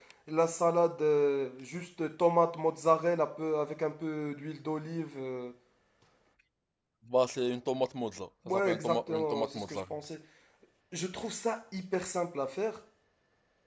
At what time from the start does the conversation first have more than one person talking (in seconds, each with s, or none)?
8.4 s